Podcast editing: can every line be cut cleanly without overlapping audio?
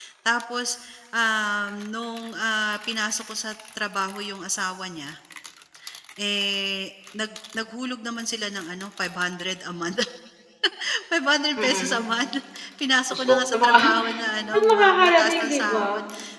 No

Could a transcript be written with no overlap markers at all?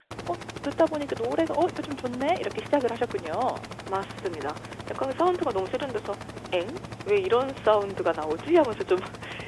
Yes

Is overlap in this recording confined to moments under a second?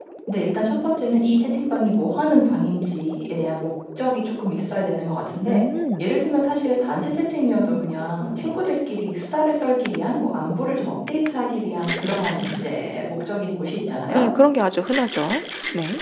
Yes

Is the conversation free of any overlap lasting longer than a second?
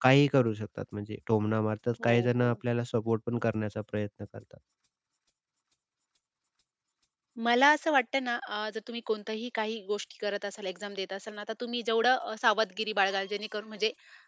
Yes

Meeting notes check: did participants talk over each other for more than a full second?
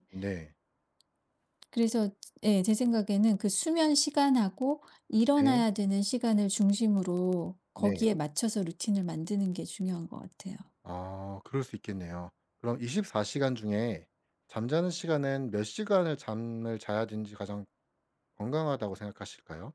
No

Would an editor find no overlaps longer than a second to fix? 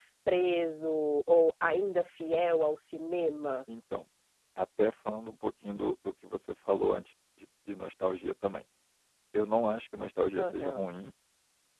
Yes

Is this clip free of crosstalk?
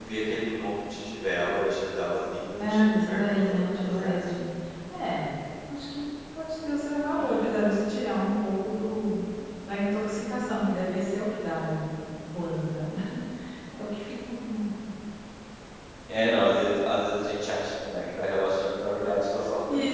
No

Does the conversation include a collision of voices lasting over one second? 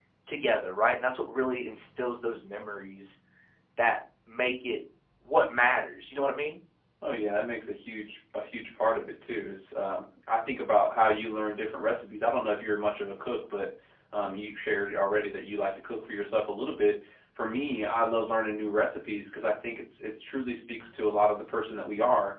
No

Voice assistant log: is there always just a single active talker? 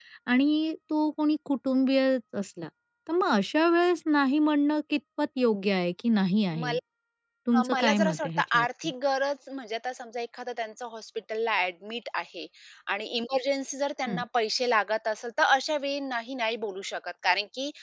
No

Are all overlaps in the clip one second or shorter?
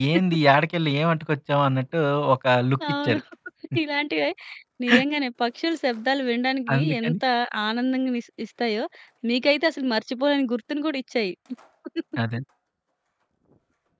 Yes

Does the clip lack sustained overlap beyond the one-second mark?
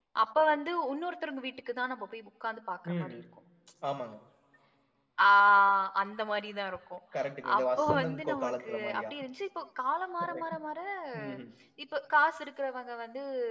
No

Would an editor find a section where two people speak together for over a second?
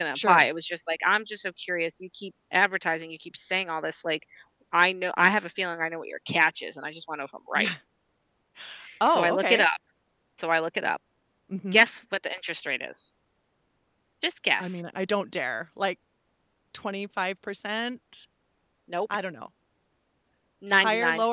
No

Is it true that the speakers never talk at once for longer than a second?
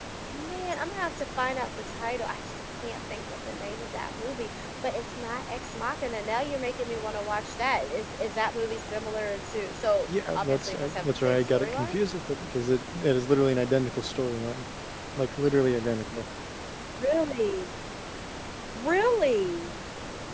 No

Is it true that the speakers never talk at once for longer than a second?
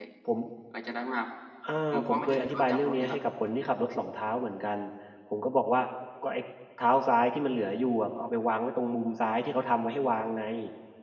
No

